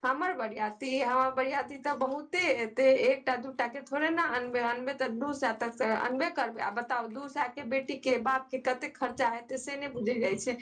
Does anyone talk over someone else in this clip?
No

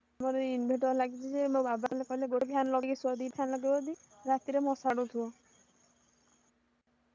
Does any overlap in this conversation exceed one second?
No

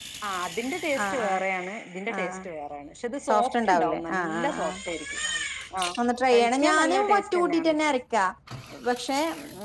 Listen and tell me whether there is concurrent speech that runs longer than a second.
Yes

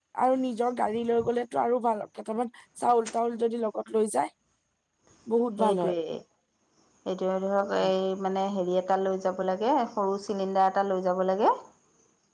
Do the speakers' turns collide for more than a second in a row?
No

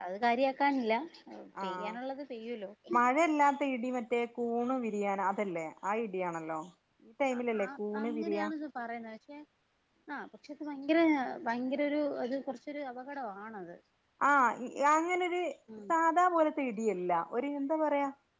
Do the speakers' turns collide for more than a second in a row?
No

